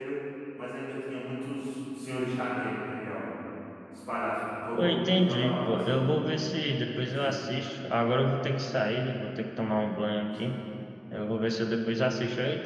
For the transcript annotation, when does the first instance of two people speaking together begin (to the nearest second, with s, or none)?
5 s